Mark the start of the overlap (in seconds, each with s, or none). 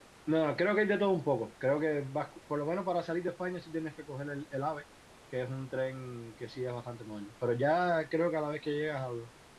none